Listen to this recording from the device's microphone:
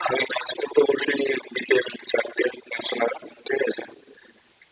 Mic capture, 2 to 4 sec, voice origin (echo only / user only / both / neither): echo only